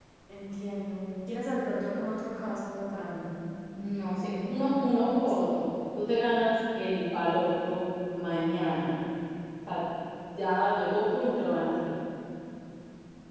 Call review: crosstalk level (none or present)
none